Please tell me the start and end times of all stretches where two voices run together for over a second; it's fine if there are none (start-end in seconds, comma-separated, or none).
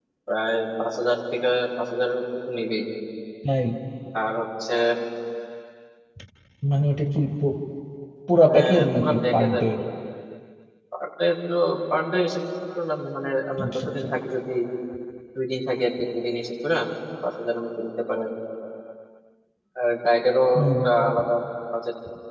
8.4-9.6